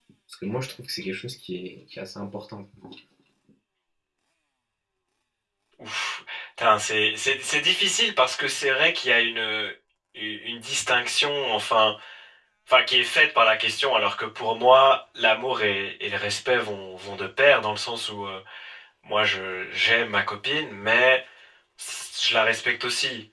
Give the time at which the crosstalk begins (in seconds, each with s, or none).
none